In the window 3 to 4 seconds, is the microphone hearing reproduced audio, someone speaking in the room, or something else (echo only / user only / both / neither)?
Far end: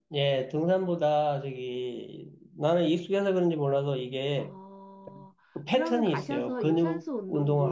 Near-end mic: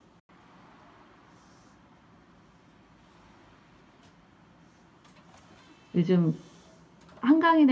neither